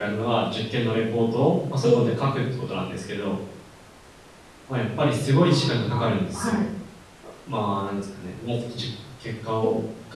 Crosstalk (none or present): present